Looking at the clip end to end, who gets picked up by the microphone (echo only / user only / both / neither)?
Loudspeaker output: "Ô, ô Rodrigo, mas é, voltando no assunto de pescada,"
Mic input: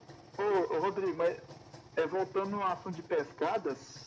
echo only